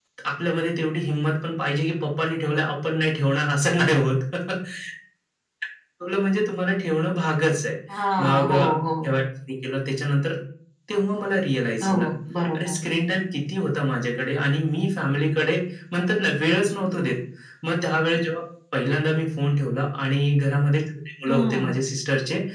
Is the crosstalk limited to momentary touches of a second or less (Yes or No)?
Yes